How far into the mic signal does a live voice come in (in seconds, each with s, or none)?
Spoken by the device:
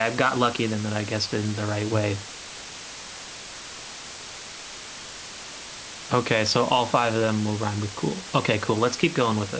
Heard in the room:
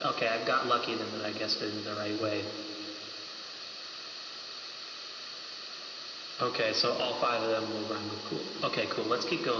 none